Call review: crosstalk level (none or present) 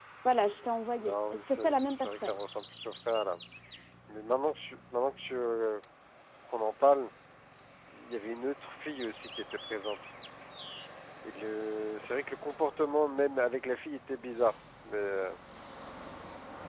present